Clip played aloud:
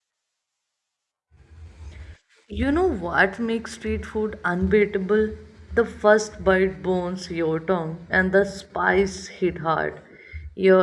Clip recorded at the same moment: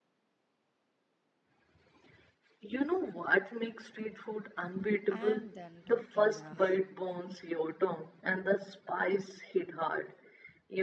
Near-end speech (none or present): present